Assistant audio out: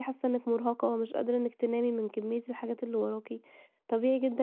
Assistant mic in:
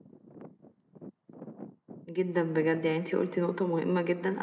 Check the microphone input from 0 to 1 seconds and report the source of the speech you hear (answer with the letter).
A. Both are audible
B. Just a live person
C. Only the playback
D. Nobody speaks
D